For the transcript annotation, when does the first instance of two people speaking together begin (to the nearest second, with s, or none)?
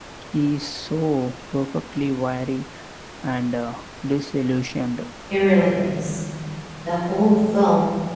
none